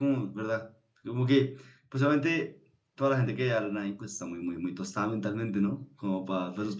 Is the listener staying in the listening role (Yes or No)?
No